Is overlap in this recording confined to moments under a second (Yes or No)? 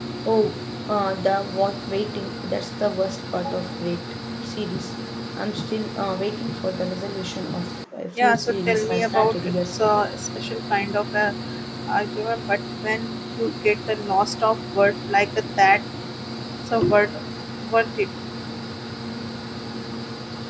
No